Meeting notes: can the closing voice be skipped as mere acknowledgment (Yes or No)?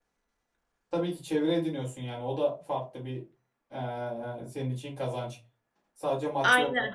No